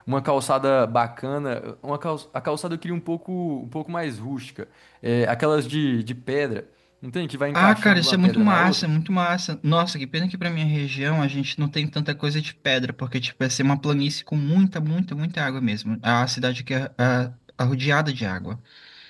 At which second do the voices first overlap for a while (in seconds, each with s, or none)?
7.5 s